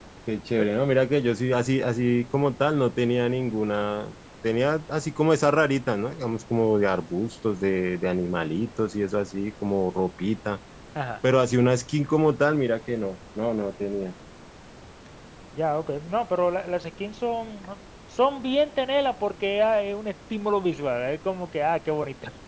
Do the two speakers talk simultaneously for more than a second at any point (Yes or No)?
No